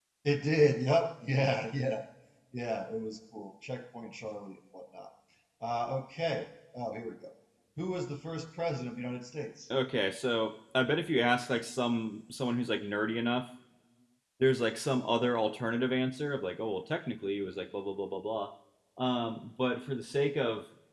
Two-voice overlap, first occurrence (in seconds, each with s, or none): none